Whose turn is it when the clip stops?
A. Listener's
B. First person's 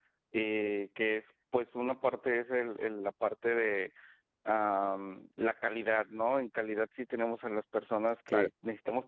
B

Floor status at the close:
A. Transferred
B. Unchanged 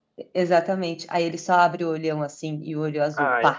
A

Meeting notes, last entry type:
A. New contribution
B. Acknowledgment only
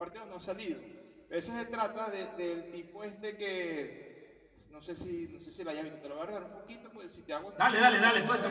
A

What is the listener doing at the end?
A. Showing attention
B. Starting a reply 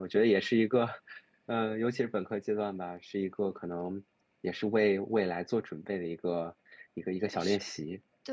B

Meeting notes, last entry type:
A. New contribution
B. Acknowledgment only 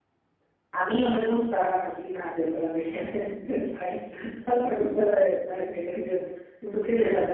B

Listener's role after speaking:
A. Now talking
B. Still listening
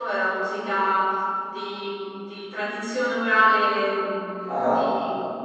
B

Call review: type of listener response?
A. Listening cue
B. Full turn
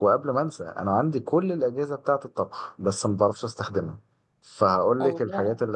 A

